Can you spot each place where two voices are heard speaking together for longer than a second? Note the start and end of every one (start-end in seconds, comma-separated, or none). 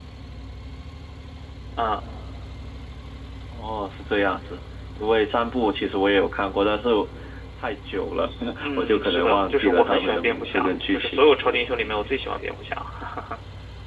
8.8-11.2